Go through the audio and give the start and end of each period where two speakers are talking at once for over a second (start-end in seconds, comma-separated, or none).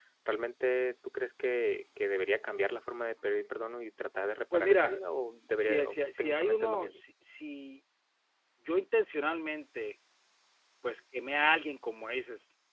5.6-7.0